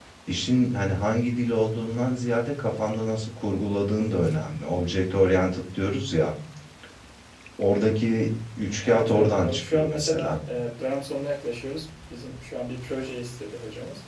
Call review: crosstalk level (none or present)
present